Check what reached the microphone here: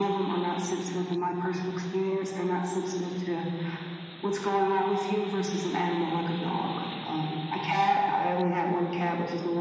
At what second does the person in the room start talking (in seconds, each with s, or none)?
none